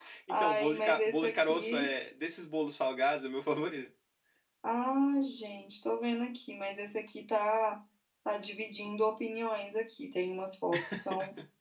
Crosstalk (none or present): present